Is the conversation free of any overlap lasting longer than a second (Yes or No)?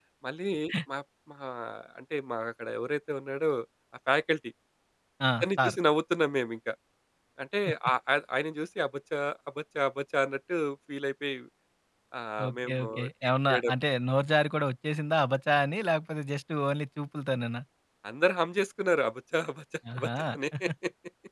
No